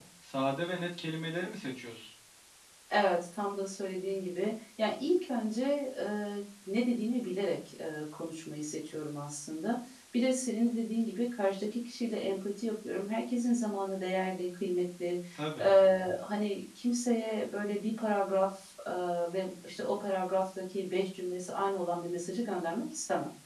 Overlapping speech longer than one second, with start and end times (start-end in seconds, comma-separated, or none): none